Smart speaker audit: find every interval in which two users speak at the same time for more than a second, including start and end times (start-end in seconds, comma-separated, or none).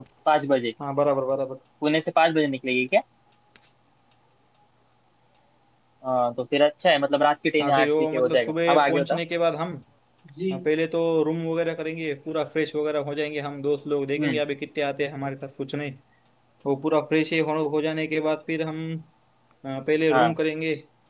7.6-9.2